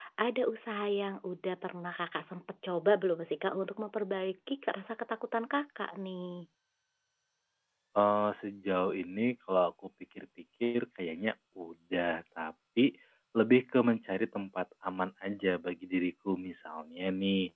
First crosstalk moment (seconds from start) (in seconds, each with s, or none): none